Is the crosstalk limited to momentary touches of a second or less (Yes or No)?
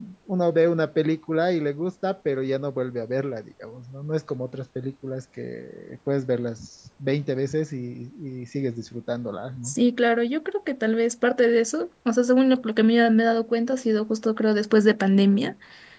Yes